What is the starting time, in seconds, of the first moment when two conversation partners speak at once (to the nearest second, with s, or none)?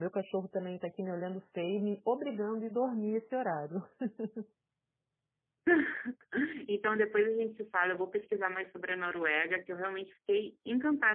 none